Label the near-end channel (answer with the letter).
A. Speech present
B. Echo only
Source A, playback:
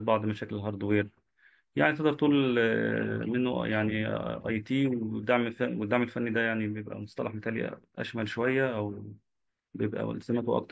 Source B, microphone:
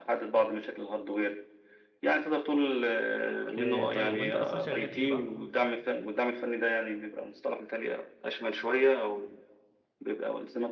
A